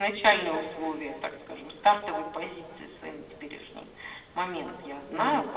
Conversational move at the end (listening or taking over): listening